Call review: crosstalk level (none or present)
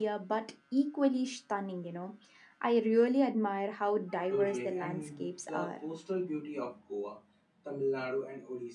present